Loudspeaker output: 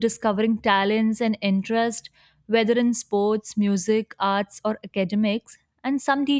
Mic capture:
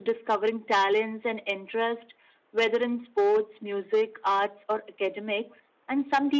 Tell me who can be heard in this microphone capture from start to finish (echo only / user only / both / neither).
echo only